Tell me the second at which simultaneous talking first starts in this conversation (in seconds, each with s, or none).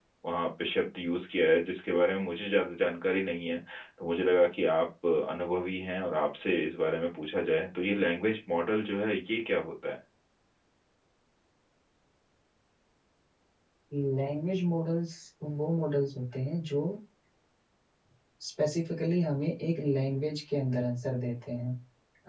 none